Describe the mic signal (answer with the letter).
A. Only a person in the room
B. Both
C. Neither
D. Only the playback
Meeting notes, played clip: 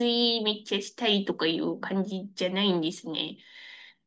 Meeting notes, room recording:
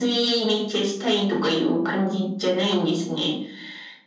D